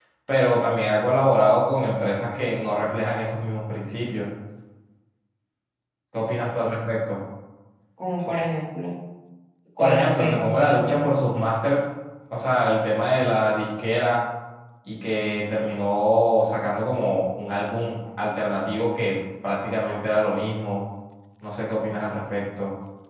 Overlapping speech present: Yes, from 9.8 s

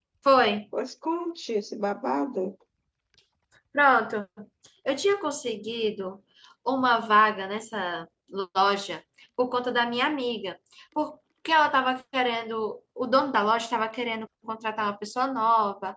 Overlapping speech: No

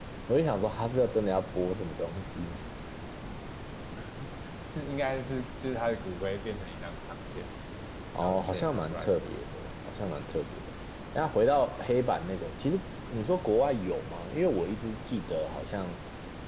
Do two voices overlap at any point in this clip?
Yes, from 8.2 s

